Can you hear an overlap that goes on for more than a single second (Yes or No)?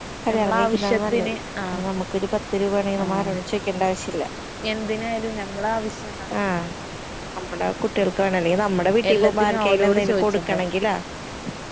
Yes